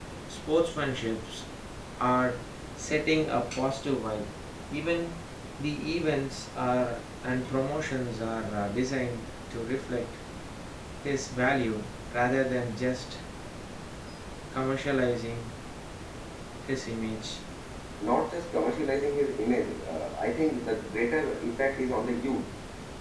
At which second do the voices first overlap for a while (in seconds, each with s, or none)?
none